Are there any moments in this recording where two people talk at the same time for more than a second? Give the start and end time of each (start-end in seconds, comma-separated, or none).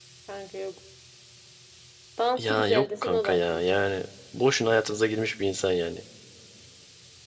2.4-3.6